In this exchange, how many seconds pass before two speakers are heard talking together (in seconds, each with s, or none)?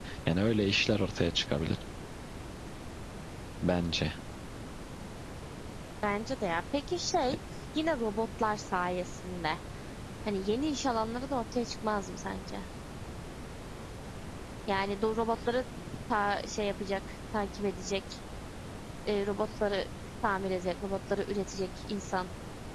none